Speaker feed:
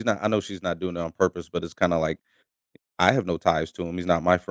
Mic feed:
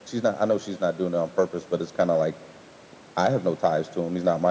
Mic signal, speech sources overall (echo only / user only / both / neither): echo only